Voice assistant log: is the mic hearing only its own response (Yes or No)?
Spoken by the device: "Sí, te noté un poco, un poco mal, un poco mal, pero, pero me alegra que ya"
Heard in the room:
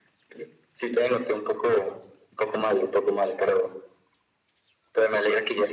Yes